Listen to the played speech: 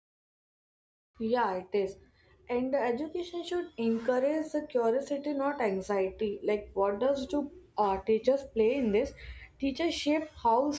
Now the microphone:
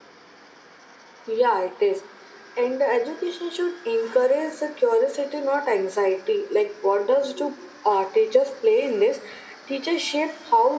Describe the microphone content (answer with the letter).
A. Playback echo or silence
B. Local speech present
A